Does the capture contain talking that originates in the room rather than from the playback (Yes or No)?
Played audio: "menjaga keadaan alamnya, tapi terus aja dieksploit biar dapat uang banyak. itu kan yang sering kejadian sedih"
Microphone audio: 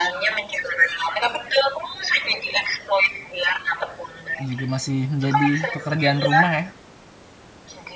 Yes